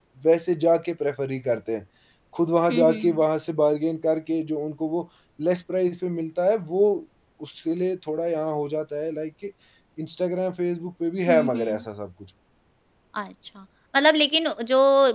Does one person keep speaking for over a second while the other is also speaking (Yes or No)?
No